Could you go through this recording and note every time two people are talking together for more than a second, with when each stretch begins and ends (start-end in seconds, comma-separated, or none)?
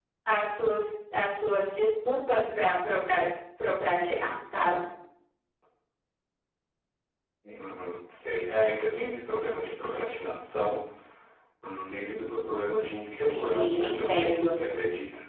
13.1-14.5